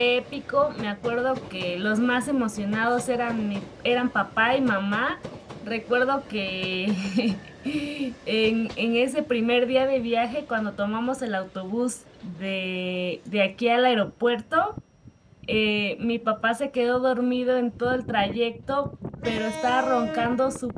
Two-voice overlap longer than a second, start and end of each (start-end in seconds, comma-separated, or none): none